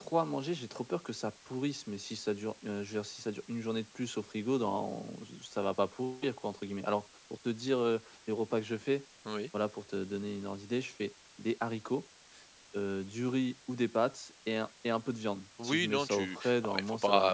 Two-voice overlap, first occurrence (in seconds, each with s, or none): 15.6 s